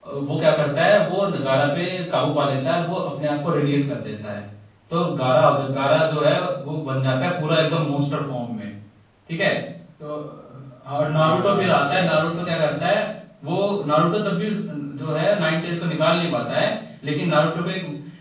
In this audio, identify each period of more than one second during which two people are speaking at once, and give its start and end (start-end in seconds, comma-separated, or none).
11.1-12.5